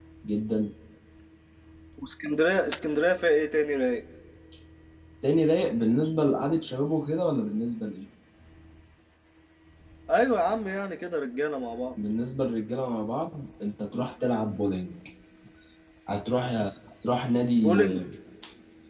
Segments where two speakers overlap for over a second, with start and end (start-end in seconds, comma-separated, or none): none